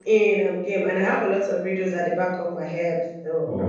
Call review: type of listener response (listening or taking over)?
taking over